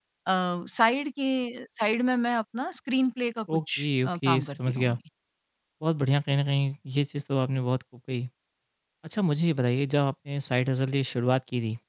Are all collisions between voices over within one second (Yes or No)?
No